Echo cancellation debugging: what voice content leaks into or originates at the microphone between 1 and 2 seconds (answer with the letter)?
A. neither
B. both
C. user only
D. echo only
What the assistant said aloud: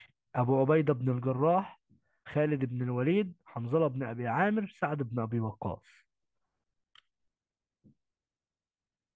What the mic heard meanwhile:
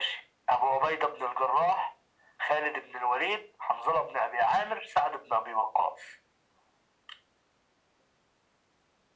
D